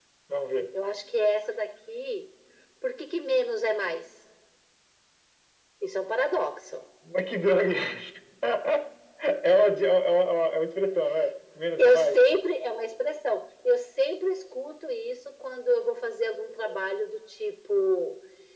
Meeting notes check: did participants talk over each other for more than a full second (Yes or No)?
No